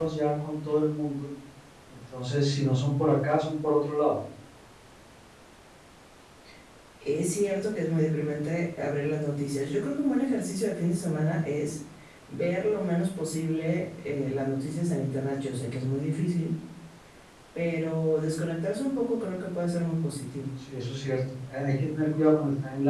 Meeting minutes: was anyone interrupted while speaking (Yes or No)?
No